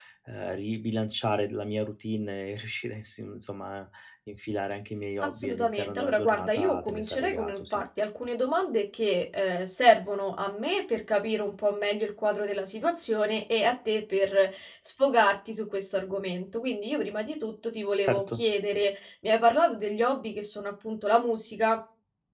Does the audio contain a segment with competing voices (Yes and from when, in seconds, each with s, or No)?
Yes, from 5.2 s